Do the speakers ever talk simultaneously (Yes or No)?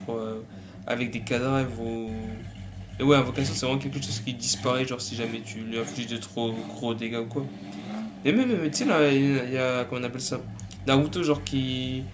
No